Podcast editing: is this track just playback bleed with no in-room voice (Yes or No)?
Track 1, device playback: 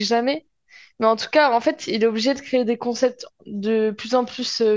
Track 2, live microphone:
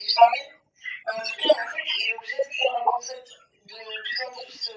Yes